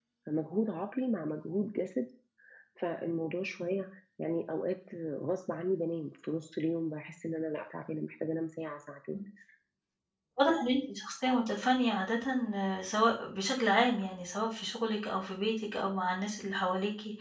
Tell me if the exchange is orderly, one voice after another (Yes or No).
Yes